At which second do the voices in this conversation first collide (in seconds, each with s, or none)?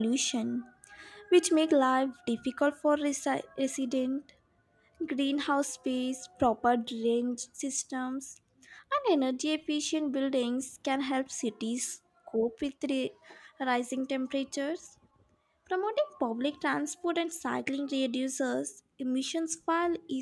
none